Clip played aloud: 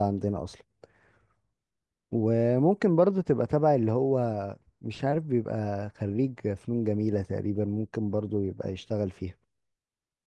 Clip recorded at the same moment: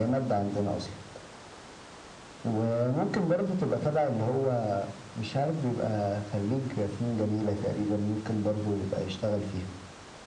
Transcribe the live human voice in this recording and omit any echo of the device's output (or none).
none